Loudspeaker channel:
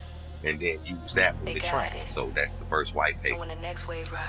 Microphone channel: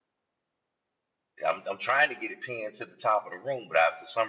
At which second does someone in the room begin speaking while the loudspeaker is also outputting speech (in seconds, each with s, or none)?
1.4 s